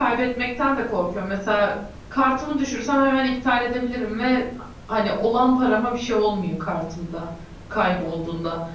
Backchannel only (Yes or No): Yes